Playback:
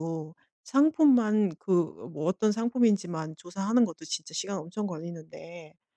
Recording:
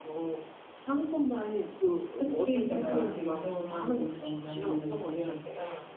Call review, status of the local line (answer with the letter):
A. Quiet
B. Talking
B